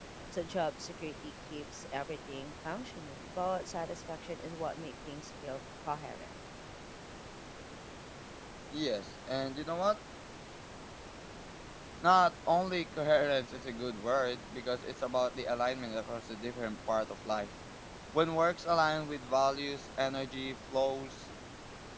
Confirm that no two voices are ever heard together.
Yes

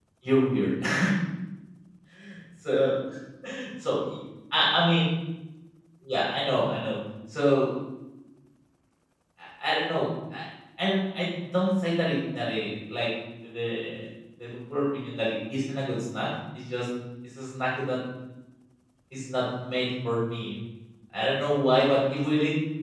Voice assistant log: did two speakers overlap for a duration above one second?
No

